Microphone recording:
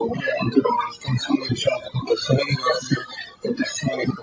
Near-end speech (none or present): none